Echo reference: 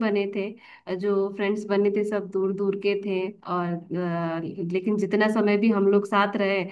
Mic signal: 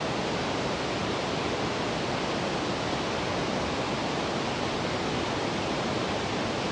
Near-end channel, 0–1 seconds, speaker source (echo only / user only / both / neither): neither